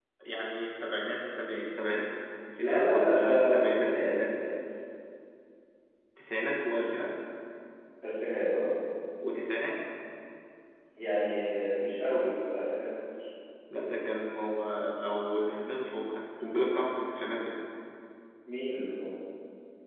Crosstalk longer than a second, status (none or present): present